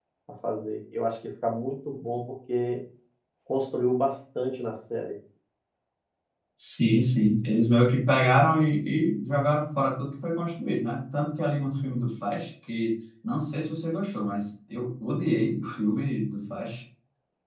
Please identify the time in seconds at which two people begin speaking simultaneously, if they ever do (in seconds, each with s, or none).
none